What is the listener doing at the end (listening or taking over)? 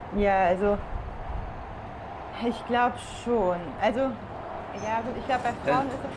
listening